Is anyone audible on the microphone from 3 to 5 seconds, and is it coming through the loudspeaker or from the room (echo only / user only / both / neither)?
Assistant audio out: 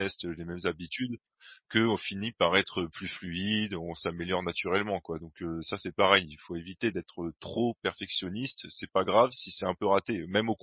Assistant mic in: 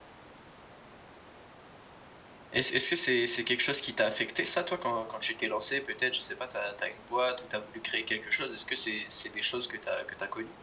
user only